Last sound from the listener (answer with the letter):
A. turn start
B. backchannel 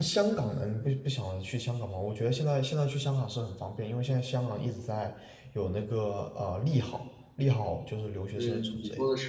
A